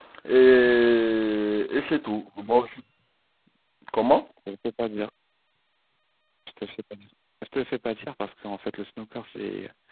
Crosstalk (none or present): none